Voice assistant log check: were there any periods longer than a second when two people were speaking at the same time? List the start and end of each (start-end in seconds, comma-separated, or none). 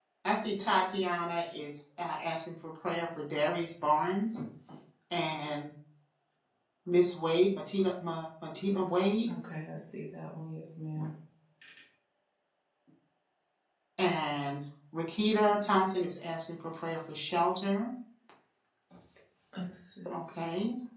none